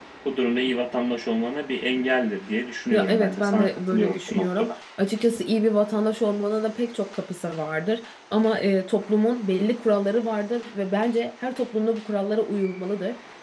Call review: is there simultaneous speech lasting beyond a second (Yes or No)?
Yes